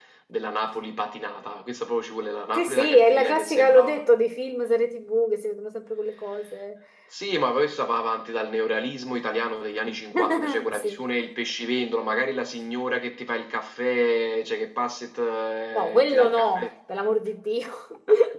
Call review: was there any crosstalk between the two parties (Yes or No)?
Yes